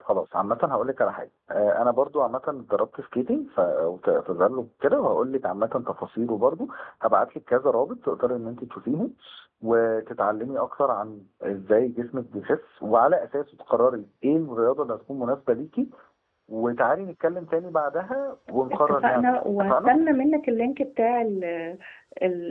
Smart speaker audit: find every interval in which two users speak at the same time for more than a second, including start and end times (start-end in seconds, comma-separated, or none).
18.7-19.9